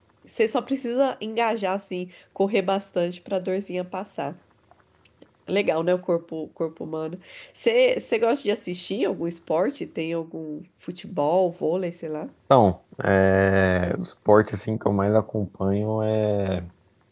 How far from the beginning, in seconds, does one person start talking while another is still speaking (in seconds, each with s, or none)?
none